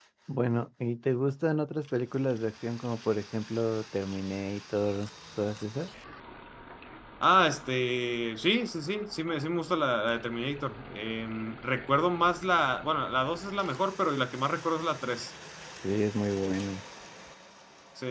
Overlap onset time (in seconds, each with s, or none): none